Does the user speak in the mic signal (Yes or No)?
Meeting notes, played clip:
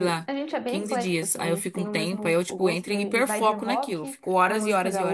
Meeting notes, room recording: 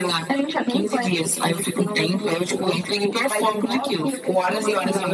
Yes